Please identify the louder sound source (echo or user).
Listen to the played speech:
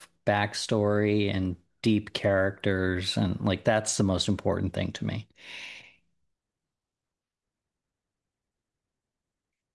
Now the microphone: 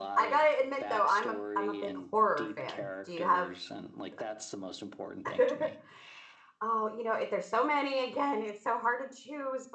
user